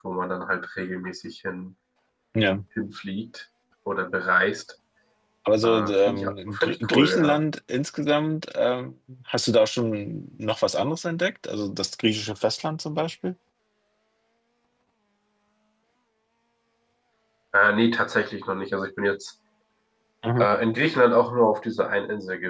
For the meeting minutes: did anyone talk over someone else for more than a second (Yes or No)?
Yes